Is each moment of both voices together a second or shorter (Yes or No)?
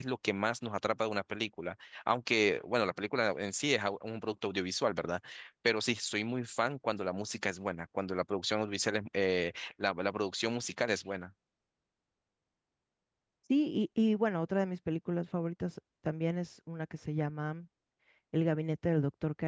Yes